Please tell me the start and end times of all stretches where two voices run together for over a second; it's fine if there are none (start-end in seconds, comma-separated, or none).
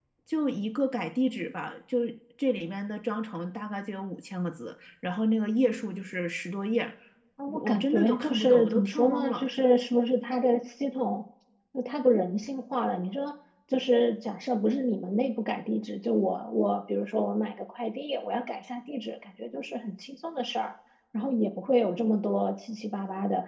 7.5-9.5